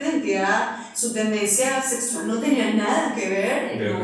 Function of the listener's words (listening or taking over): listening